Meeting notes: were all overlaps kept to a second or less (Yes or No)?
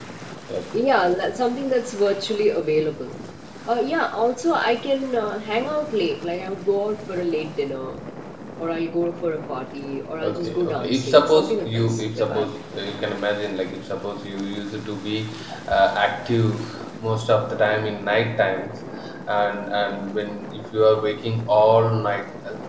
No